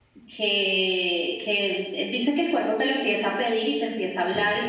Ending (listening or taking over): listening